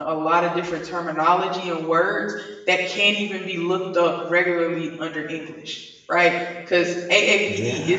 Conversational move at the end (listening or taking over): listening